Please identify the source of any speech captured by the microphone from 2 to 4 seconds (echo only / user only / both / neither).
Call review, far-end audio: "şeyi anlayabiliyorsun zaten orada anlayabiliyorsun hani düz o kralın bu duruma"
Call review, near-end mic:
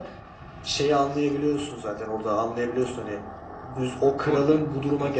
echo only